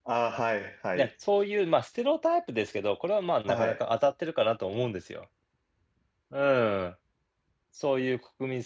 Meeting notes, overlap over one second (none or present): none